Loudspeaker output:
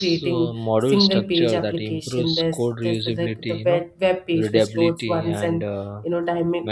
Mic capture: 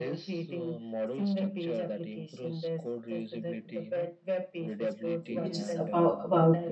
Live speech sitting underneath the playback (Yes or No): No